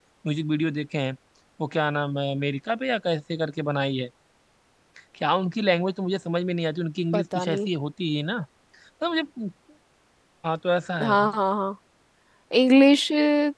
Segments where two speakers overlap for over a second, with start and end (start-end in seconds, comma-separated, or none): none